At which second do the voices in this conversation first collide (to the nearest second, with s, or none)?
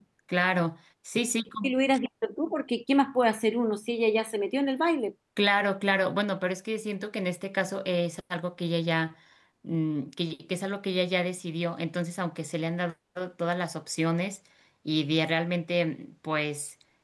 none